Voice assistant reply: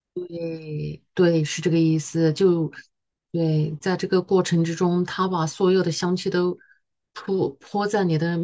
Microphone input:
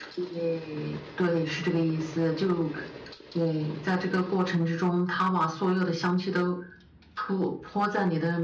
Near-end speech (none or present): none